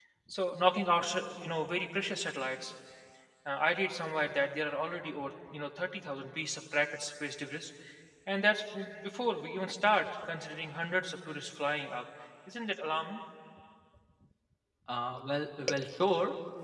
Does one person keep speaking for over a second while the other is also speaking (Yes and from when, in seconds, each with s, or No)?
No